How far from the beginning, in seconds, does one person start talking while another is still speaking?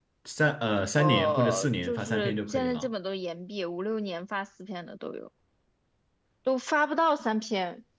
1 s

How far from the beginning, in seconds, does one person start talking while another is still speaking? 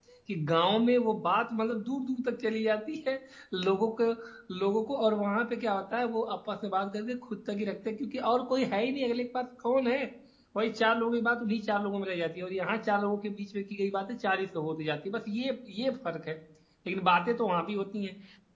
none

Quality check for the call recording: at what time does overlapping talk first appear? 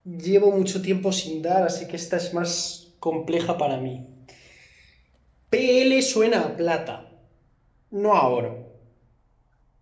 none

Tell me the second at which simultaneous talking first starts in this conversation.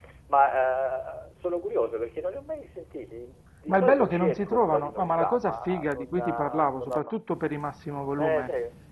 4 s

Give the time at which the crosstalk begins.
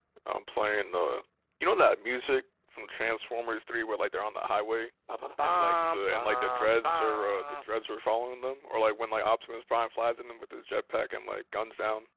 5 s

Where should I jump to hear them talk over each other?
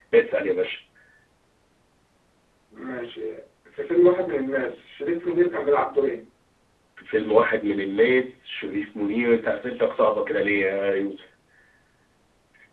none

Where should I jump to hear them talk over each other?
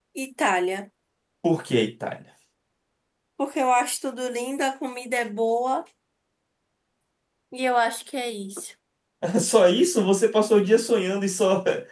none

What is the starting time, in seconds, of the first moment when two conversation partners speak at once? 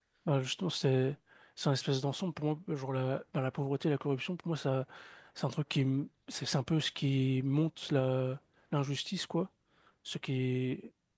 none

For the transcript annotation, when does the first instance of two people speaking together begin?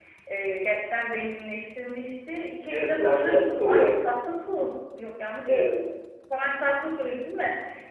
3 s

